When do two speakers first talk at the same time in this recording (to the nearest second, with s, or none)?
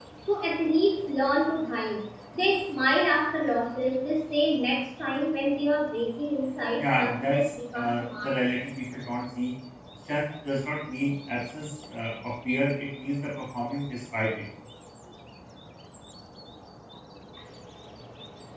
7 s